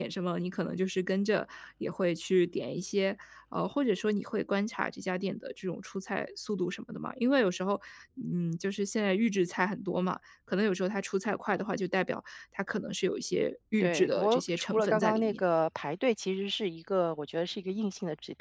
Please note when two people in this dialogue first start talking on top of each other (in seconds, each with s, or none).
13.8 s